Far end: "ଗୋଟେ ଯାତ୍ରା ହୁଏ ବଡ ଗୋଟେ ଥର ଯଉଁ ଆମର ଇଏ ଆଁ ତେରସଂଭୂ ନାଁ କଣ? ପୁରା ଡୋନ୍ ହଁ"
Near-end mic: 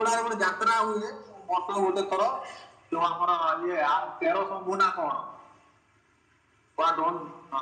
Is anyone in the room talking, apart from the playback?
No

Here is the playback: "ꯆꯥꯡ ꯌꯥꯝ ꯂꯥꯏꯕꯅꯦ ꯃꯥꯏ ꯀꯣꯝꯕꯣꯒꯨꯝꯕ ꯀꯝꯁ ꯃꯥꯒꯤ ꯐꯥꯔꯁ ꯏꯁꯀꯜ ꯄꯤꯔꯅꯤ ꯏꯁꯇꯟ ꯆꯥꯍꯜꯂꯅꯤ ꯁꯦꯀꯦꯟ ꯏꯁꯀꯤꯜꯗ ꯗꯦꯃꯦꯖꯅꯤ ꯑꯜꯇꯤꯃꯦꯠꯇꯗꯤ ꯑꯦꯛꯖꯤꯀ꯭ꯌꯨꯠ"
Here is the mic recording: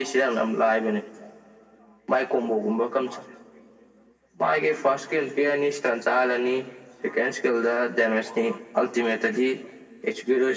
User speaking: No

